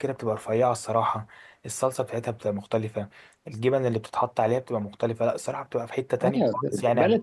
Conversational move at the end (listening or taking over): taking over